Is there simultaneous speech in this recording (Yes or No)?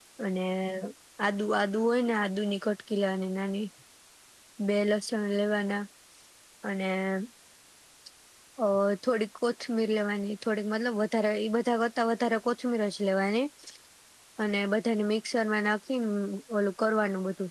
No